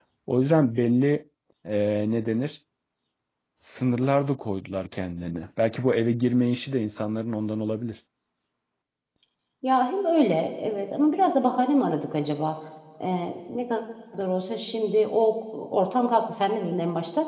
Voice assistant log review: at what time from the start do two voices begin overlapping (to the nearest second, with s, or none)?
none